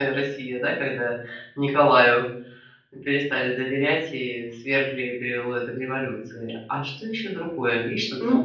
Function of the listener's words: taking over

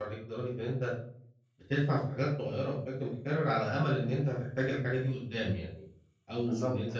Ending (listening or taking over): listening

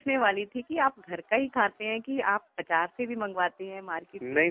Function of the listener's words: taking over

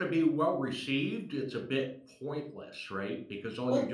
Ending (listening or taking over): taking over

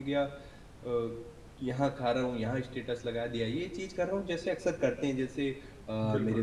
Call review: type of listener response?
listening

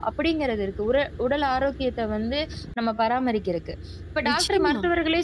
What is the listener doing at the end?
listening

